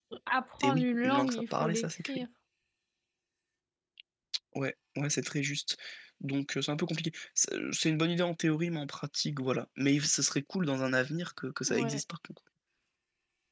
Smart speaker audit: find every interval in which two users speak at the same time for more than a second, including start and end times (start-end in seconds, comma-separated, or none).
0.6-2.2